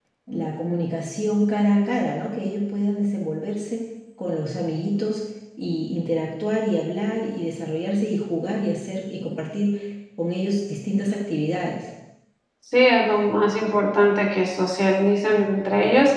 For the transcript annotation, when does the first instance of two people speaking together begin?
none

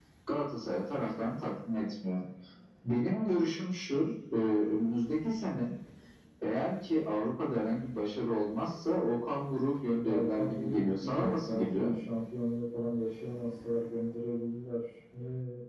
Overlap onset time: 10 s

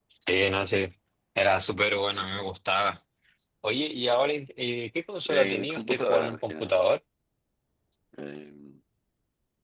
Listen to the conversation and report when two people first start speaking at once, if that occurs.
5 s

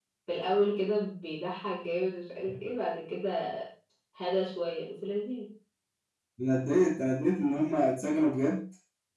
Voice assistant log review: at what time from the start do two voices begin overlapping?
none

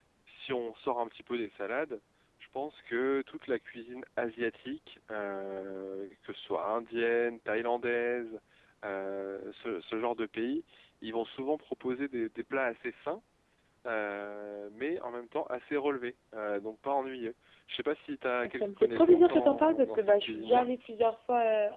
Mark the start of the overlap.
18 s

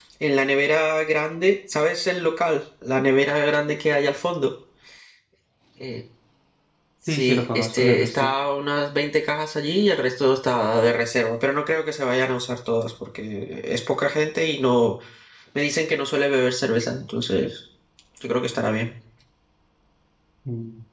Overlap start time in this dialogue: 7 s

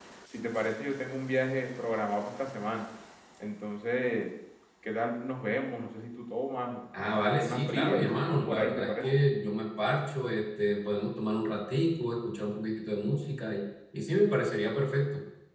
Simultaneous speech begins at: 7 s

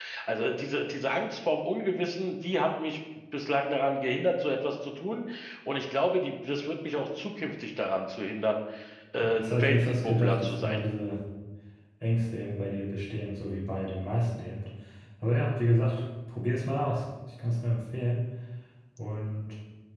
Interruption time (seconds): 9 s

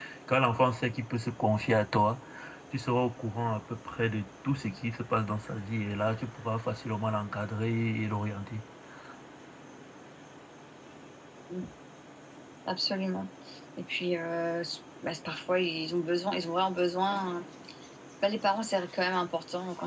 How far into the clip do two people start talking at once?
none

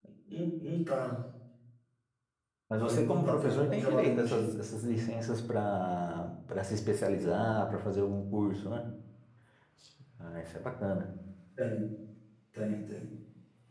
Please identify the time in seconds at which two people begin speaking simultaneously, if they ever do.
3 s

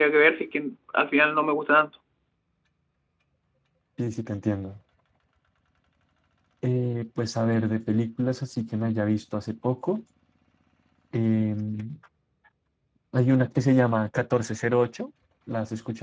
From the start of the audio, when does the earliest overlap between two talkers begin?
none

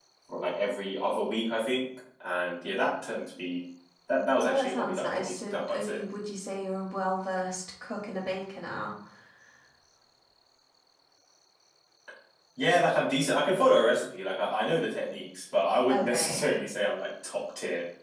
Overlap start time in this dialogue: 4 s

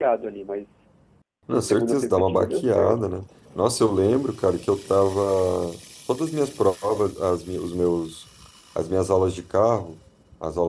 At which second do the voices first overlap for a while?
2 s

